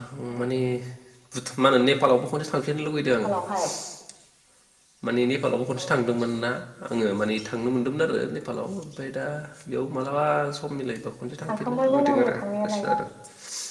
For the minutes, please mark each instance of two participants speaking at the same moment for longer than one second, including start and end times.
11.5-12.8

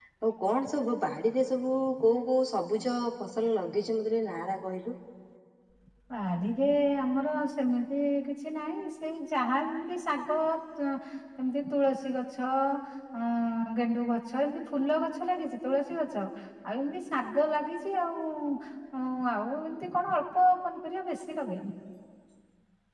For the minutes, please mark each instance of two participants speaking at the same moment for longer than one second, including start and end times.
none

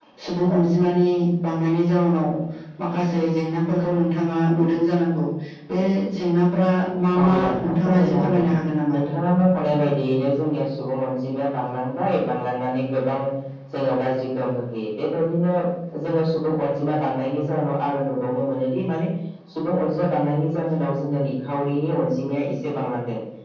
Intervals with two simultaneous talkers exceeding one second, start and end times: 7.2-8.5

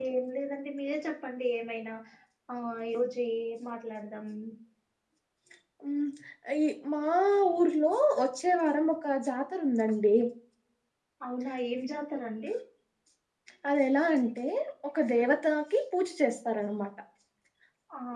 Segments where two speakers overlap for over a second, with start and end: none

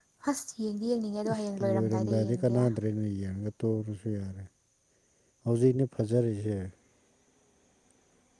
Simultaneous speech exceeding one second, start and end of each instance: 1.3-2.5

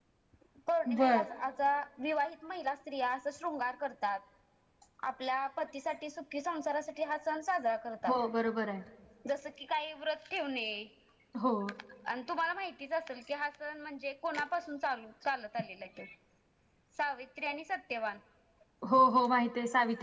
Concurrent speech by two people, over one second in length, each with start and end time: none

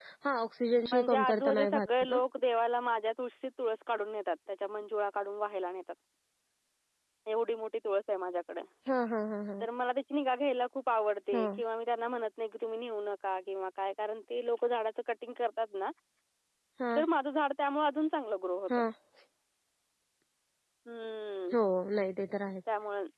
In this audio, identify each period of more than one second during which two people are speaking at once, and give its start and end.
0.9-2.2

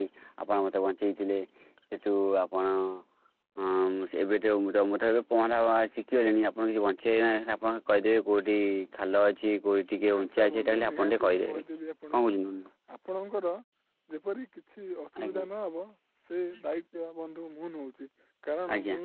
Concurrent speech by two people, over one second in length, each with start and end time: 10.2-11.6

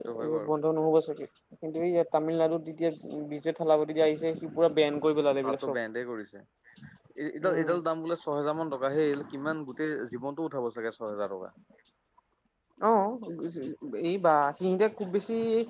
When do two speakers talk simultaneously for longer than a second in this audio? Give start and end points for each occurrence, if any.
none

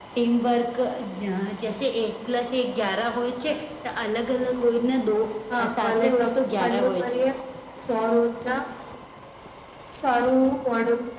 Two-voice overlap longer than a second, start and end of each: 5.7-7.2

